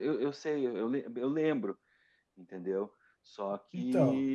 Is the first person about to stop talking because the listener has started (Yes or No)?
No